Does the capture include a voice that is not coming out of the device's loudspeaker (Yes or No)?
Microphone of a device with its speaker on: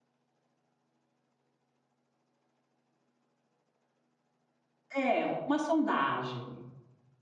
Yes